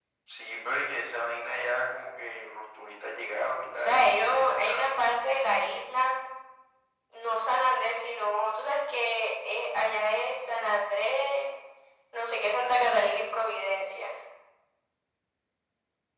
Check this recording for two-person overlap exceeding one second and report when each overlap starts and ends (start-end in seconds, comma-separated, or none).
3.7-5.0